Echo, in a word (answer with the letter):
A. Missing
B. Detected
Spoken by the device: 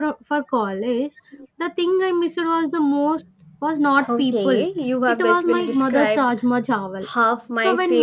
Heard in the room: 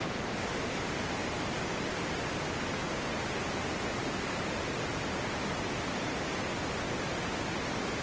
A